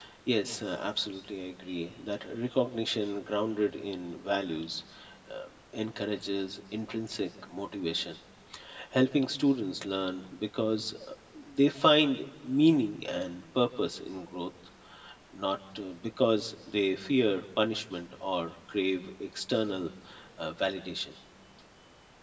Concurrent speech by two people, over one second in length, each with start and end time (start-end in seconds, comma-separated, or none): none